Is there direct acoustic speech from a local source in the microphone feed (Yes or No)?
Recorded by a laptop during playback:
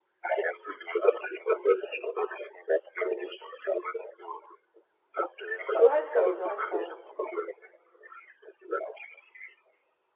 Yes